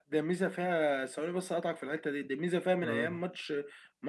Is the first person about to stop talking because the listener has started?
No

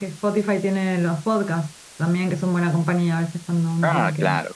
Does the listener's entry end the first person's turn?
Yes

